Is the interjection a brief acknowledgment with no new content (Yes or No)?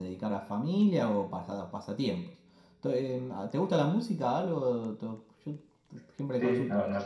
No